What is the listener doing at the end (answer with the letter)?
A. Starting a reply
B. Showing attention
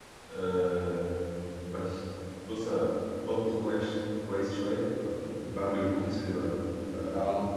B